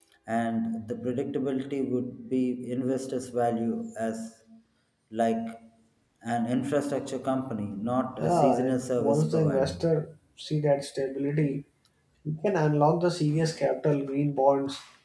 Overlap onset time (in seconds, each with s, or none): 8.2 s